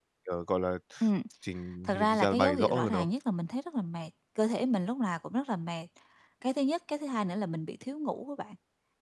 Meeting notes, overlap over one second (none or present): present